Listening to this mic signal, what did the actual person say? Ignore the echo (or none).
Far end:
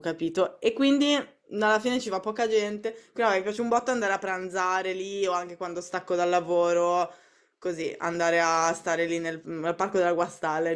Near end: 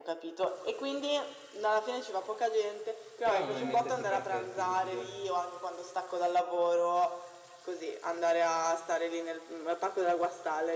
Però non ho in mente questi parchetti, questi giorni.